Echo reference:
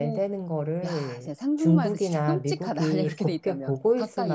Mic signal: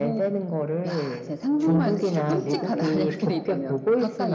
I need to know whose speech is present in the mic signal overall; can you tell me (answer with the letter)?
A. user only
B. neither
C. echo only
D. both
D